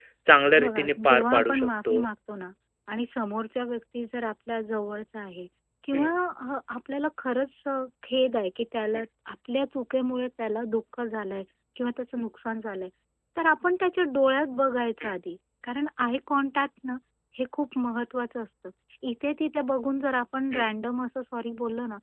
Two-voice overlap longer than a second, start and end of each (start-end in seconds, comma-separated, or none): 0.6-2.0